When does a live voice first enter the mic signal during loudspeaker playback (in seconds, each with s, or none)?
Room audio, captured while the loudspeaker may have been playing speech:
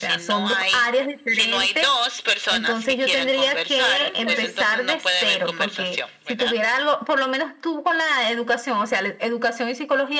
3.9 s